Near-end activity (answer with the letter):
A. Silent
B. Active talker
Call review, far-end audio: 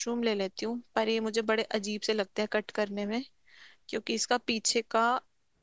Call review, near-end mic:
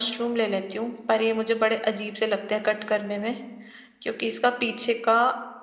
A